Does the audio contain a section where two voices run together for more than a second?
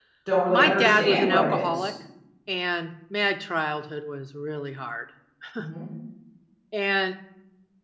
Yes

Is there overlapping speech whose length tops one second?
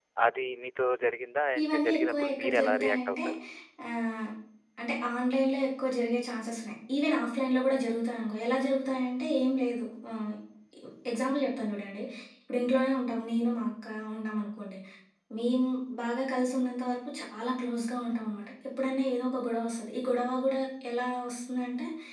Yes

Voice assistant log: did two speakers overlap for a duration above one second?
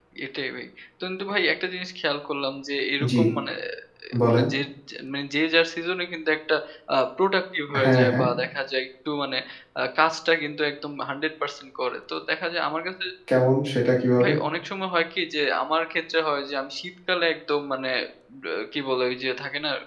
No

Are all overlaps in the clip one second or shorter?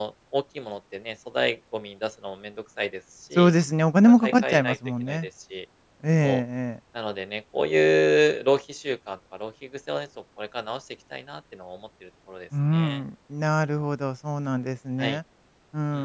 No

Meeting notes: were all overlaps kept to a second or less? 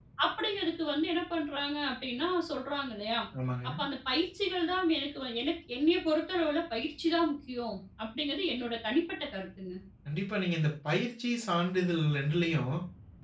Yes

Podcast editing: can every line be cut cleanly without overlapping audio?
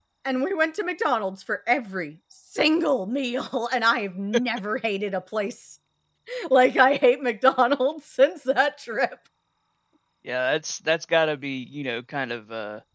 Yes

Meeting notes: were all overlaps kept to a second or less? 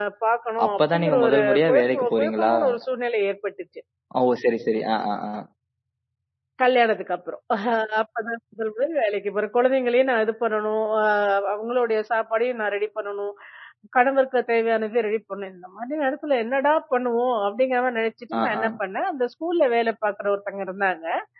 No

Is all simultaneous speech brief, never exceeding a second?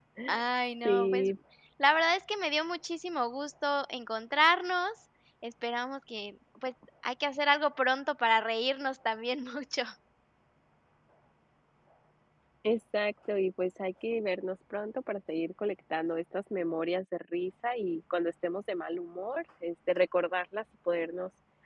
Yes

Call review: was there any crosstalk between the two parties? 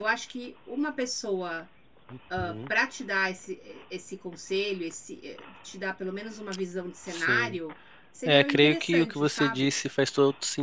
Yes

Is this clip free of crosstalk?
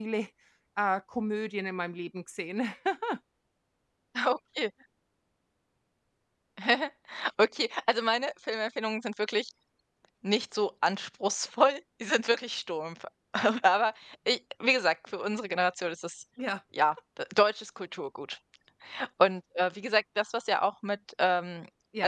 Yes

